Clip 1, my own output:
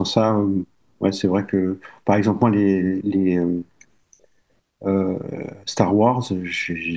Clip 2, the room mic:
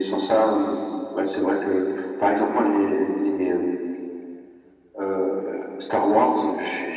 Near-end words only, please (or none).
none